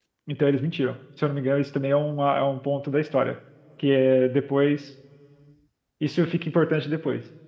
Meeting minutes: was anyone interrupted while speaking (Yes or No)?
No